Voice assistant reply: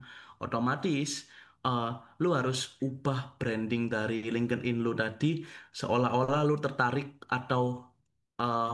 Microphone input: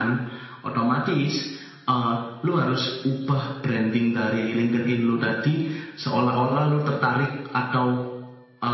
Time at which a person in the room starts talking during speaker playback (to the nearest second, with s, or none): none